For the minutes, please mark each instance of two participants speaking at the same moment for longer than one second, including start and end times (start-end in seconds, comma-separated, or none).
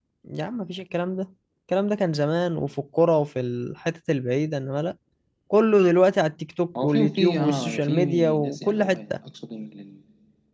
6.8-9.1